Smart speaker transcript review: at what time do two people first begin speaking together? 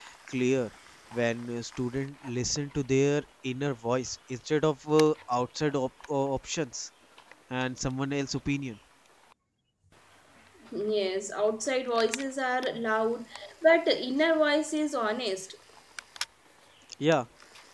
none

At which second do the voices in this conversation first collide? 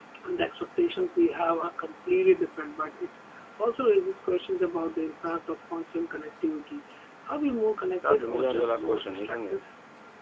8.1 s

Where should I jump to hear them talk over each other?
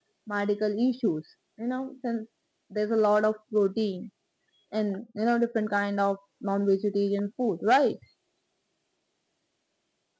none

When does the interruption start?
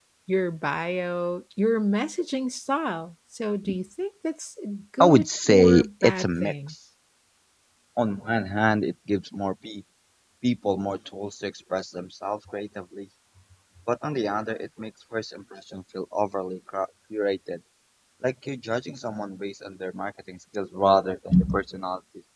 5.0 s

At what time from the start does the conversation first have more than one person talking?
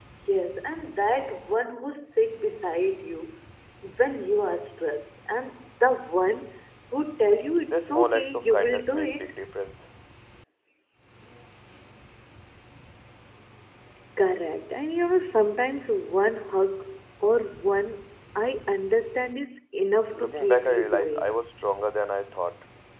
7.7 s

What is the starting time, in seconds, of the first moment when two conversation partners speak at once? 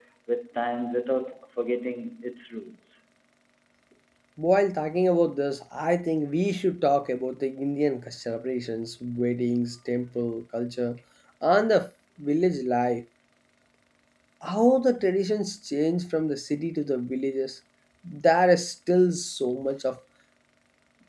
none

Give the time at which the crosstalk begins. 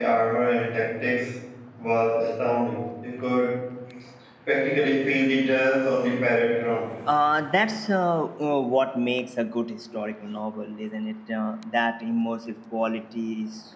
none

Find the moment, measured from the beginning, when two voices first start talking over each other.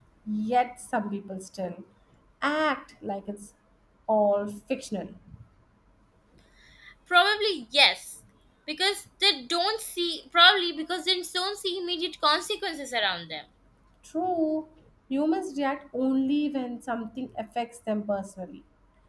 none

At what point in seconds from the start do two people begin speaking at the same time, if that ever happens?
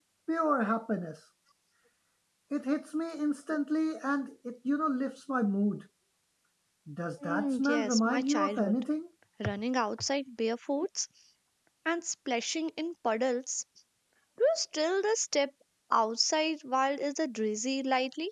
7.2 s

